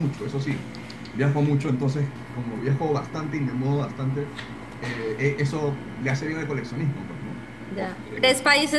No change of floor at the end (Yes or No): No